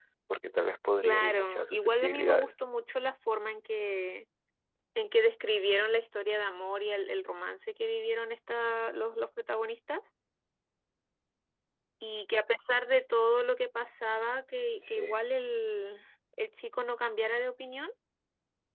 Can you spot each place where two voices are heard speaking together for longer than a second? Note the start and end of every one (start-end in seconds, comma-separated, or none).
1.0-2.5